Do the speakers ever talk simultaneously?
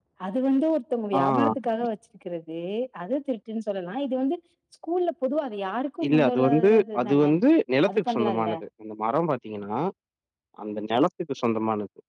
Yes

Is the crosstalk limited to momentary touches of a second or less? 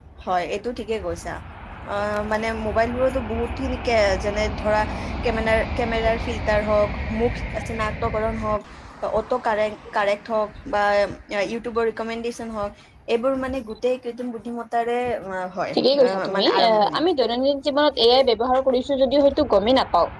No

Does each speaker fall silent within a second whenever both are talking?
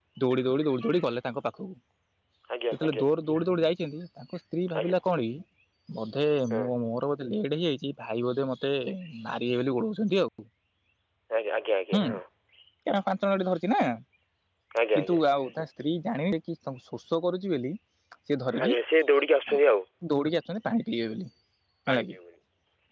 Yes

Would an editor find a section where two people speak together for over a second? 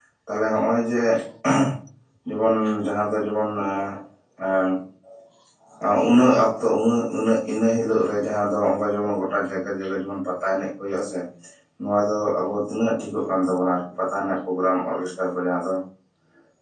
No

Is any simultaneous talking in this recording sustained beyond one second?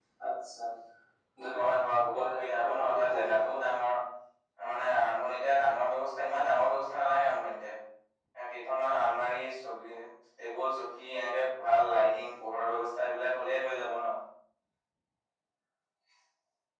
Yes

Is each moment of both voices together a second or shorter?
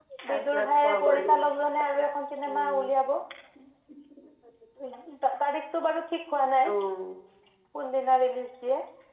No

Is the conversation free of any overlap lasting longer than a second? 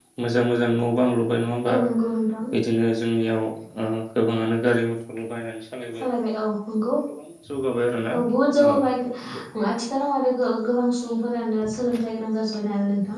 Yes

